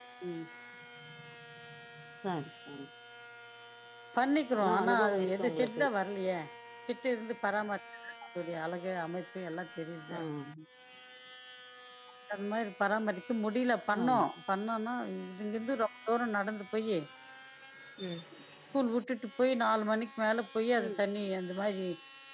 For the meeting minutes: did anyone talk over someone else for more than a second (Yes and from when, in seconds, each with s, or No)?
Yes, from 4.6 s